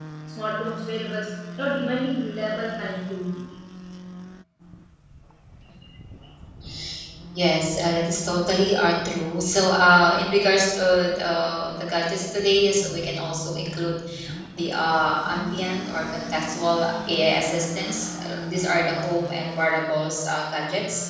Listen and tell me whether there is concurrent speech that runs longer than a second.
No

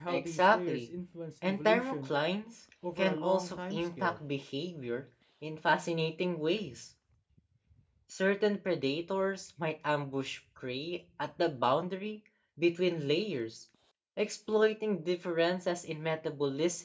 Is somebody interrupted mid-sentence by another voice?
Yes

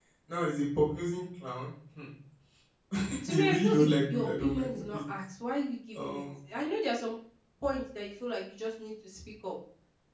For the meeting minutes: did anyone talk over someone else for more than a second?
Yes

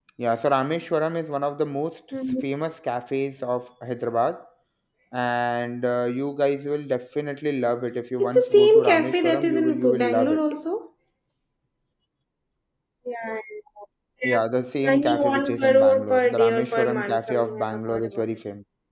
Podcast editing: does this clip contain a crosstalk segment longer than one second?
Yes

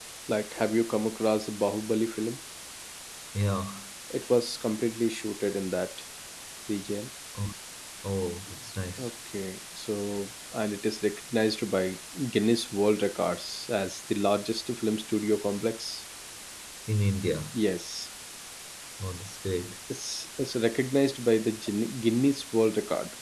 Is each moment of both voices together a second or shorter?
Yes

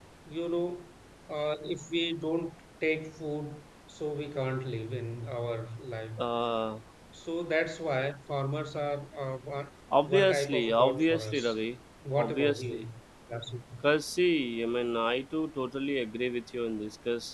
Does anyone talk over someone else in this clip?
Yes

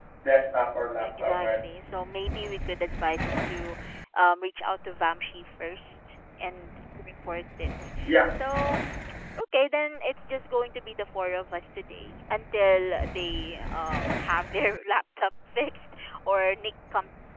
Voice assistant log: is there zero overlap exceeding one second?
Yes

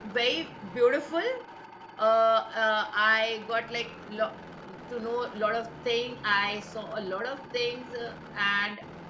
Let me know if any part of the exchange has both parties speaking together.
No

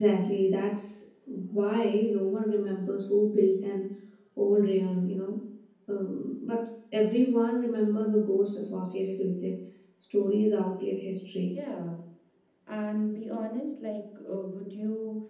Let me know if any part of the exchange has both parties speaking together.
No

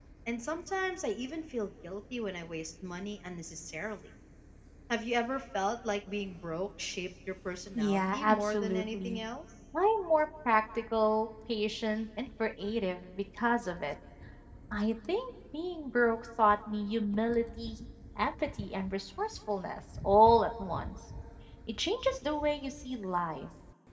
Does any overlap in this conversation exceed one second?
Yes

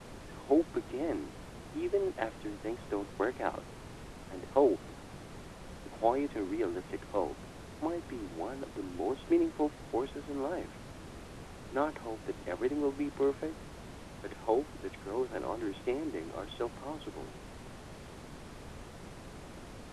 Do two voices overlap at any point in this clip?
No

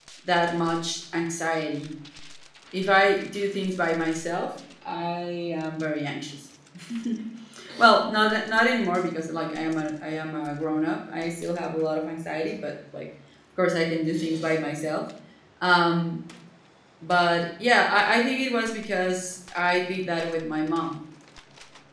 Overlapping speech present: No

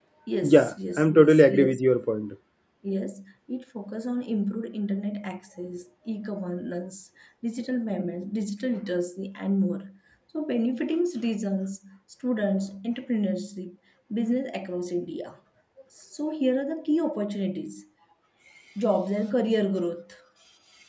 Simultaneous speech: Yes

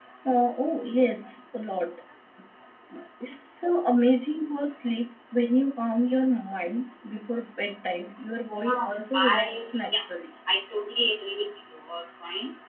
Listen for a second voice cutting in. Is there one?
Yes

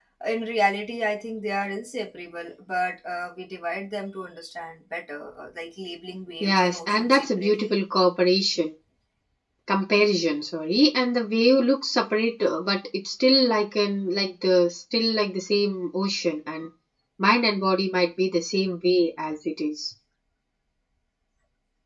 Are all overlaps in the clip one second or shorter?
No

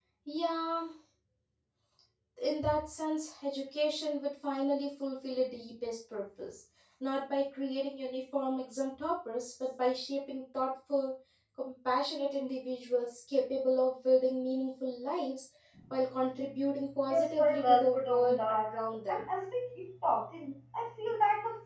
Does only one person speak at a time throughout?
No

